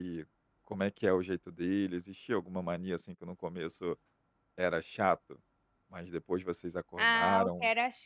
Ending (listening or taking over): taking over